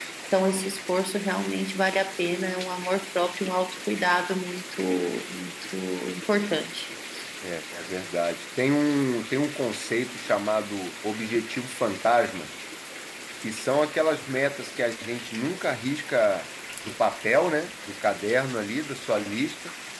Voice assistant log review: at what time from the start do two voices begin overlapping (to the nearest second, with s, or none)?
none